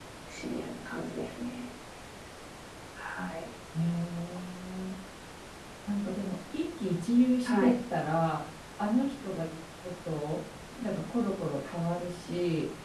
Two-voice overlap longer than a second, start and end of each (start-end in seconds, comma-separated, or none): none